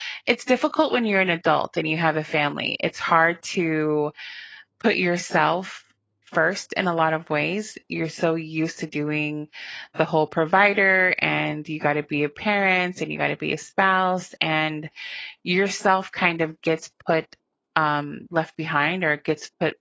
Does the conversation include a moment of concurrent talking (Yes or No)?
No